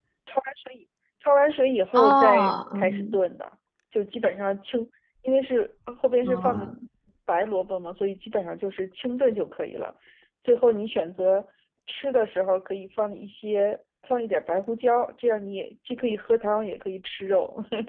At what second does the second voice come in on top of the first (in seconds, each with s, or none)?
1.9 s